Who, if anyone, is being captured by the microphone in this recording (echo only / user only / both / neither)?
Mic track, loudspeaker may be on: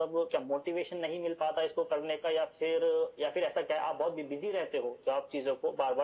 echo only